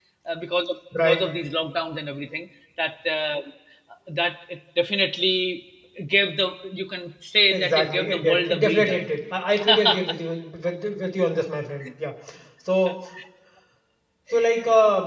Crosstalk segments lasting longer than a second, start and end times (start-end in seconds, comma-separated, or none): 7.5-9.0